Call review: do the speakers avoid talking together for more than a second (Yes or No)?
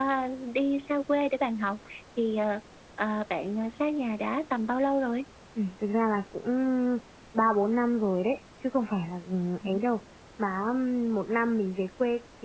Yes